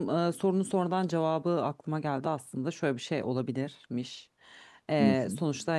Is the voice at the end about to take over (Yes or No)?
No